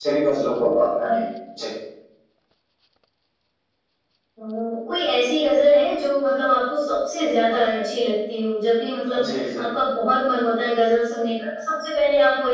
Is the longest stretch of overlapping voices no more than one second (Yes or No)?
Yes